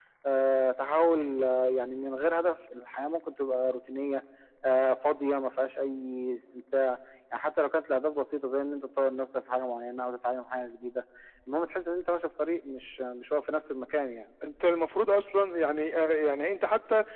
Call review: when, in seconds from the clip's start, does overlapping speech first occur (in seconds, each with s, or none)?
none